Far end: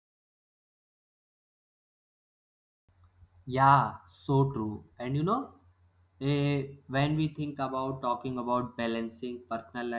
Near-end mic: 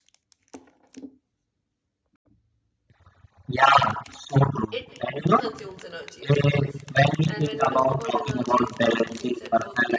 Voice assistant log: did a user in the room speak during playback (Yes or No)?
Yes